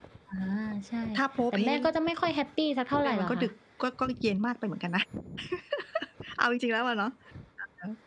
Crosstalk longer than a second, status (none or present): none